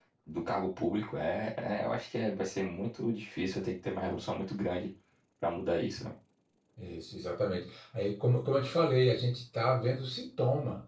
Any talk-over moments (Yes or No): No